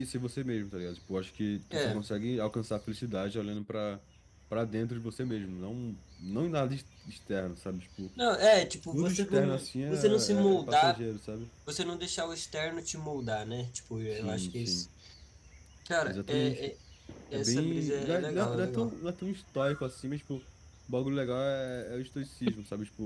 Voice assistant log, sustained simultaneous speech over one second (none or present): present